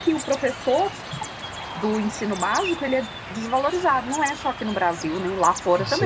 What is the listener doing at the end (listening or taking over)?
taking over